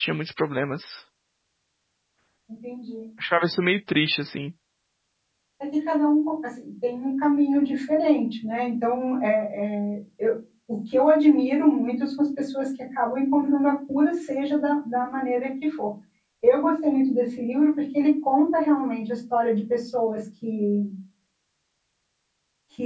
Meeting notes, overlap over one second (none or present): none